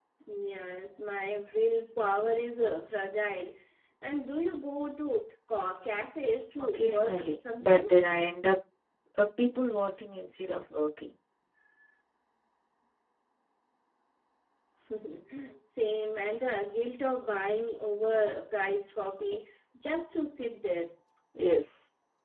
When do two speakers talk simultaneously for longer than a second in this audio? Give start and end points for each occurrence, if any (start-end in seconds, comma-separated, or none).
6.6-8.0